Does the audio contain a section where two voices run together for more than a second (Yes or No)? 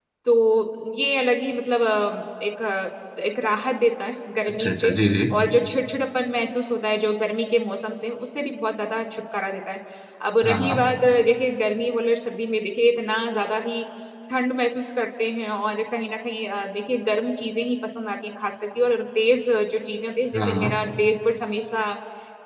No